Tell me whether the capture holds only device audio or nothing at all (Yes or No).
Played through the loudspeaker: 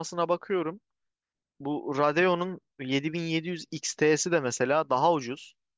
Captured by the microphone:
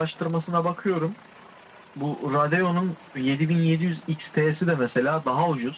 Yes